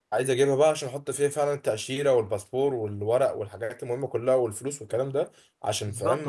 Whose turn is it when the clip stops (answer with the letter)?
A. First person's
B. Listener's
B